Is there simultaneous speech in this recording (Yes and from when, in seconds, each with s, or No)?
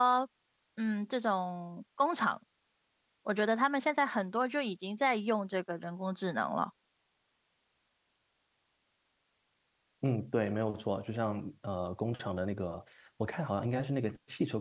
No